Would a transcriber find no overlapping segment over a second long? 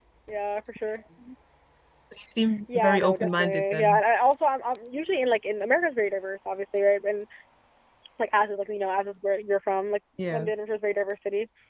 No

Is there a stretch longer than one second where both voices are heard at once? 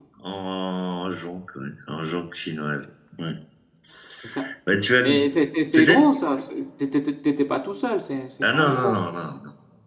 No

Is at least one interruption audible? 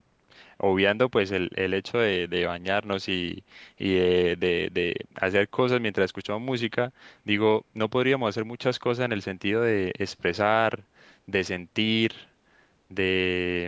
No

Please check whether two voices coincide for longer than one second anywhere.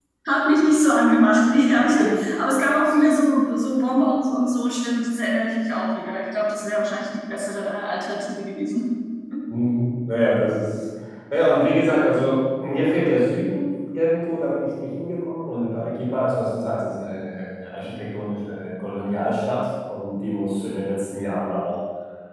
No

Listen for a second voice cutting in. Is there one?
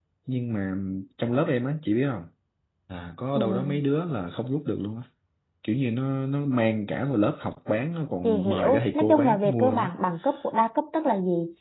Yes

